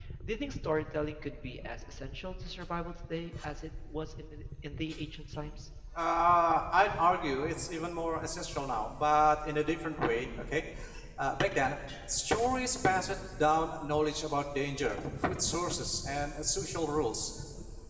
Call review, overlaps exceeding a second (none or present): none